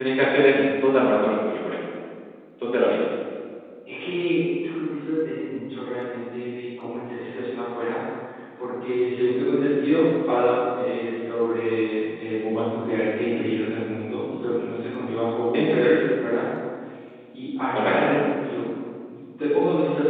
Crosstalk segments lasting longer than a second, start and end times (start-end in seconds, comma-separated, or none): none